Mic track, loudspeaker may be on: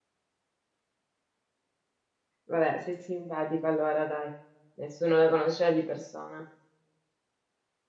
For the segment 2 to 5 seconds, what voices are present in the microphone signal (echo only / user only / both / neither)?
user only